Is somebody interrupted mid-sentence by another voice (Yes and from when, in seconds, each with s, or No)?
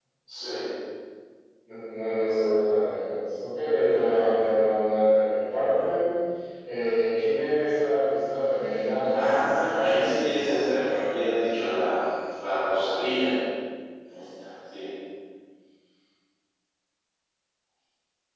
Yes, from 9.1 s